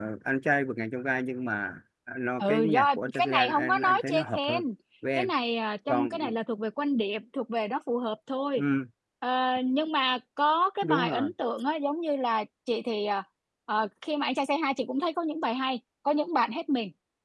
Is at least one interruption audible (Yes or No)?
Yes